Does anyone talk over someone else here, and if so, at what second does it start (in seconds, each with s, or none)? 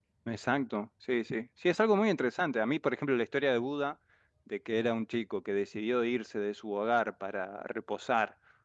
none